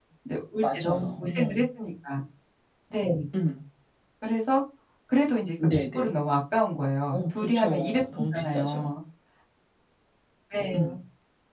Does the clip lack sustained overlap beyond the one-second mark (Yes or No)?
No